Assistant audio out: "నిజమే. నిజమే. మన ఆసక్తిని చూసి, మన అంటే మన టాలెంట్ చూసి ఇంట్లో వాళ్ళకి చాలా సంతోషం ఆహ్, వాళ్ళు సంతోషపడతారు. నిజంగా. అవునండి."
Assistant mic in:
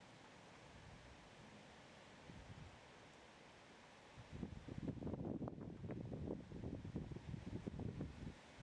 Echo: none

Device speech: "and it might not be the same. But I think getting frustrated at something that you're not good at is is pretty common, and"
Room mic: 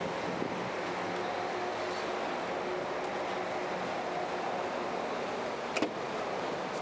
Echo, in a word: none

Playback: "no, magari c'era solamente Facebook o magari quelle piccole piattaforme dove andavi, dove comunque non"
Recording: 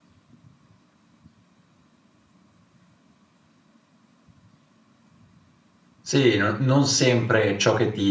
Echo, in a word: none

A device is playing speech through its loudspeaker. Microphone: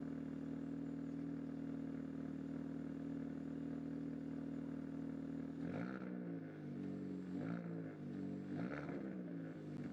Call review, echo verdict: none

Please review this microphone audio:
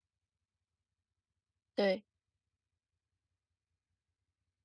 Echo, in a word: none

